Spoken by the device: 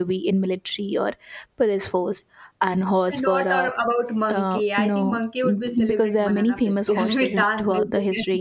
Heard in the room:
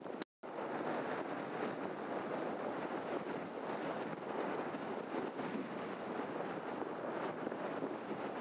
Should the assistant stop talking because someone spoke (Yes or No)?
No